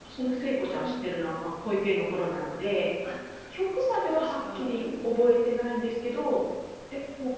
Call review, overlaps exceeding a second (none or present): present